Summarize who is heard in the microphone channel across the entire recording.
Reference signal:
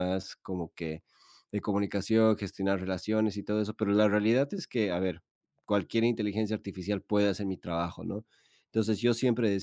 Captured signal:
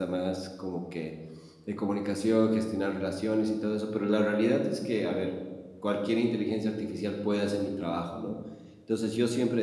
echo only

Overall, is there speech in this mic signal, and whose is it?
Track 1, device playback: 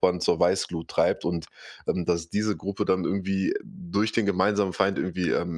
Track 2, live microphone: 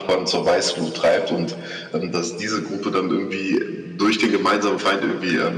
echo only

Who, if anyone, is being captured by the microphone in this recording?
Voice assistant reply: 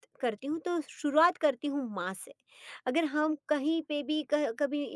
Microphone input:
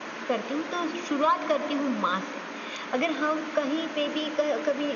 echo only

